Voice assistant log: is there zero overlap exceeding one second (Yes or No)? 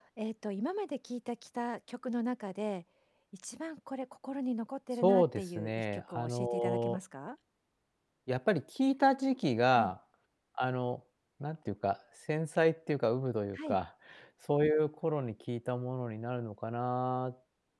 No